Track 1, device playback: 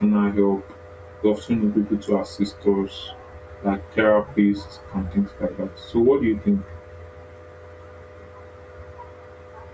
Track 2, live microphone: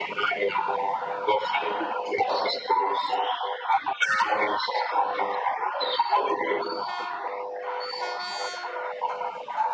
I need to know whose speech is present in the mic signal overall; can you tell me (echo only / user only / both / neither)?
echo only